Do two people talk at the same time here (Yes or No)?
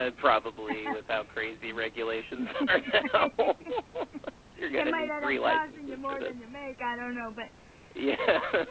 Yes